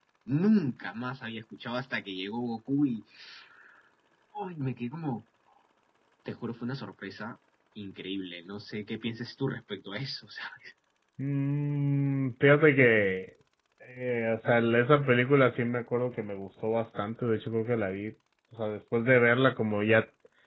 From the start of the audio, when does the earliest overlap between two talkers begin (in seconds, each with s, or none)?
none